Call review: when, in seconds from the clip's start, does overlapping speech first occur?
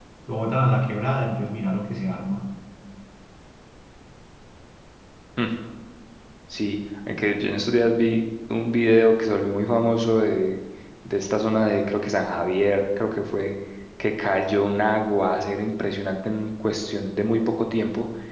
none

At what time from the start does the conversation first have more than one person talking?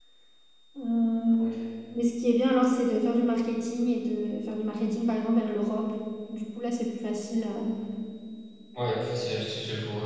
none

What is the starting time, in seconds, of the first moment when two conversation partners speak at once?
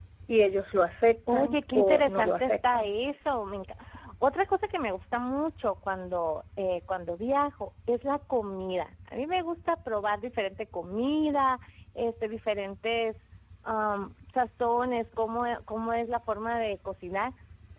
1.3 s

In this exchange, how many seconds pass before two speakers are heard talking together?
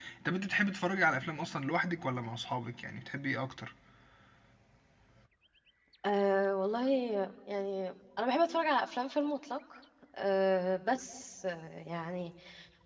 none

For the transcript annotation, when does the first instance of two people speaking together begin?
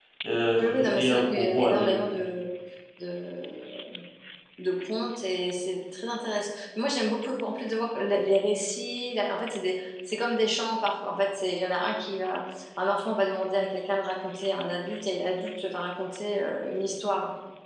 0.6 s

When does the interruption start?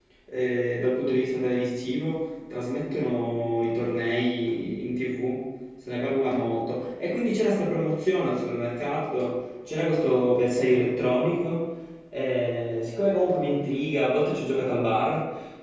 none

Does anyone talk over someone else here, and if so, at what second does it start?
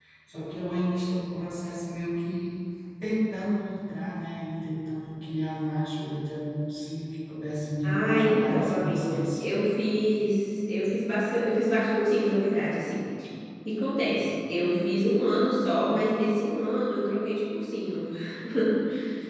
7.8 s

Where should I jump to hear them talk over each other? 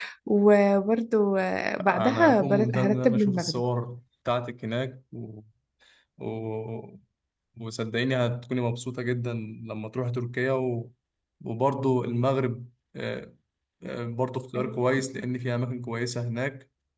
1.8 s

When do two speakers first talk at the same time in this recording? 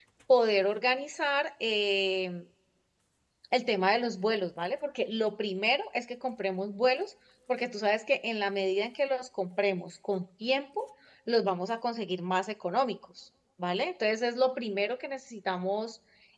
none

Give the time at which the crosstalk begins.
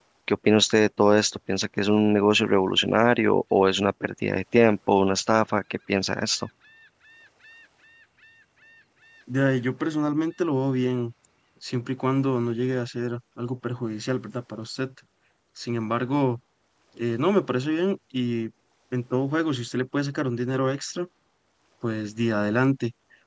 none

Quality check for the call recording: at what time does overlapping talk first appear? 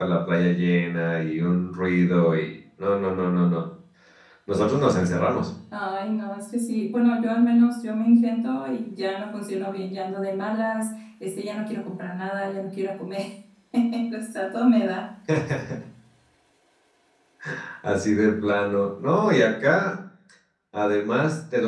none

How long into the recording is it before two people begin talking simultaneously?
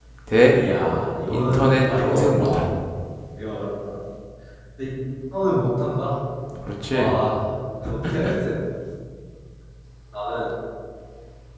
1.3 s

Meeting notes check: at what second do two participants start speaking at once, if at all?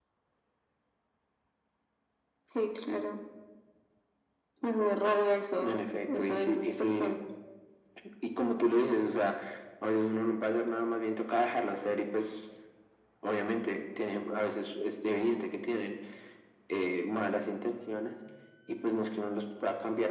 5.6 s

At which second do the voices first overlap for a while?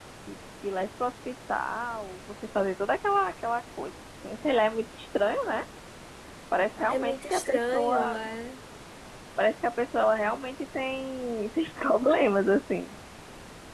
6.9 s

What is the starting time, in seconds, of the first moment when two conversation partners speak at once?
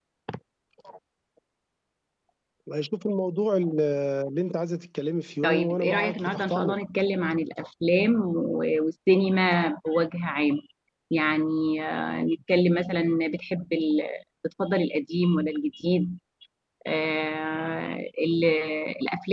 5.4 s

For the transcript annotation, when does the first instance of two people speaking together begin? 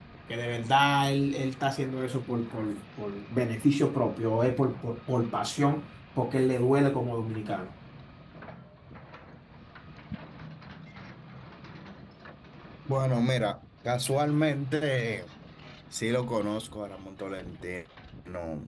none

